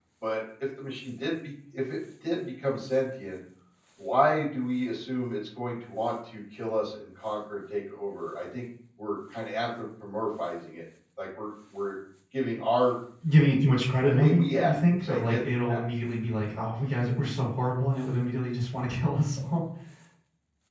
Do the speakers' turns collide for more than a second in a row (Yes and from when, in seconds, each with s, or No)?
Yes, from 14.1 s